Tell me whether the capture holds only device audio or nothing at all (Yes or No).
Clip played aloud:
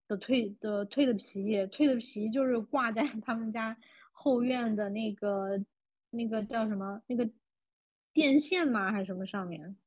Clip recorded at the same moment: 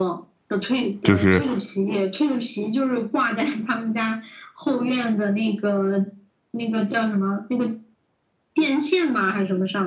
No